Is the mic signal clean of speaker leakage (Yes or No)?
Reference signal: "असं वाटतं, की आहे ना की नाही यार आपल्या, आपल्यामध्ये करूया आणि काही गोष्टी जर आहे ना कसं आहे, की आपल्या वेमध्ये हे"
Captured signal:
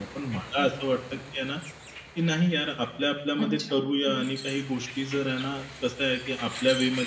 No